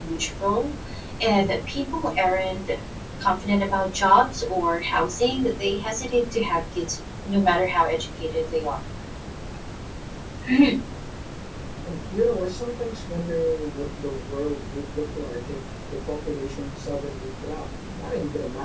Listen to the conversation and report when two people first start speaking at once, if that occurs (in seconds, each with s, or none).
none